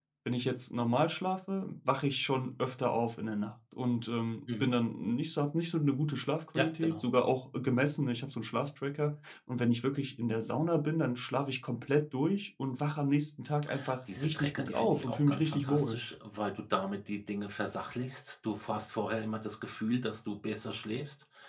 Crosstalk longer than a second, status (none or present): present